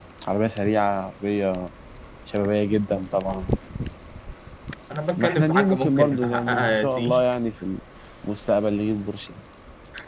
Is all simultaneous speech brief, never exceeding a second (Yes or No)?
No